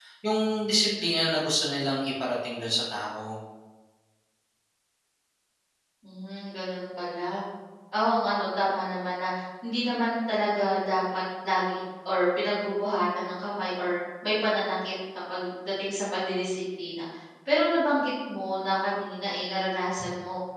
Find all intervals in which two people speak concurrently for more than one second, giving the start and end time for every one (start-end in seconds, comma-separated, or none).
none